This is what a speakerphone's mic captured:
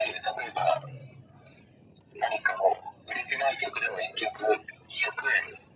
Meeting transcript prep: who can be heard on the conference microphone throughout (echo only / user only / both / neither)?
both